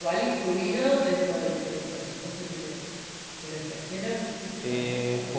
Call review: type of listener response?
taking over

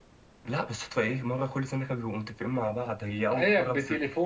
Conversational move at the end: taking over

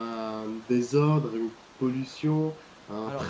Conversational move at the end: taking over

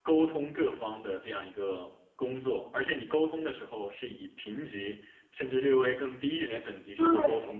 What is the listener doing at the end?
taking over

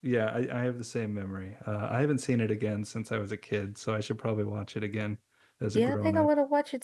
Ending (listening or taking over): taking over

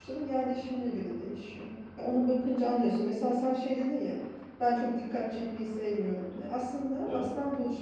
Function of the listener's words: listening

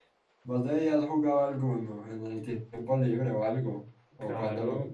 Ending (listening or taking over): taking over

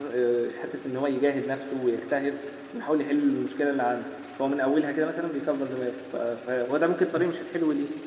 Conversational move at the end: listening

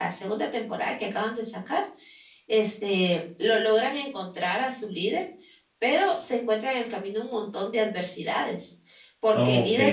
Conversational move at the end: listening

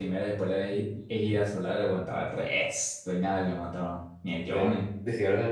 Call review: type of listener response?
taking over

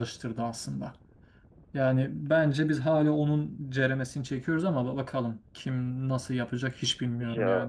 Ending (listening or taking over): taking over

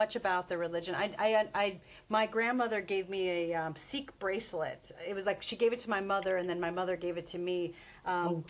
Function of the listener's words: listening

